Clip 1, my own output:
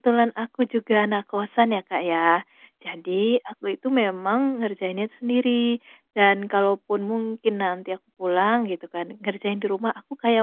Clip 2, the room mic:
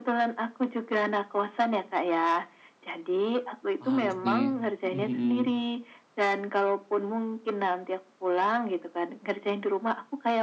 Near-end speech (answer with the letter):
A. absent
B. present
B